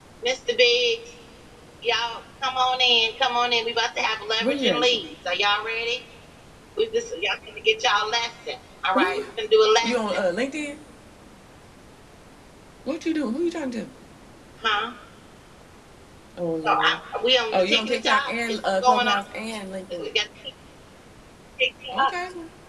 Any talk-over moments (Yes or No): Yes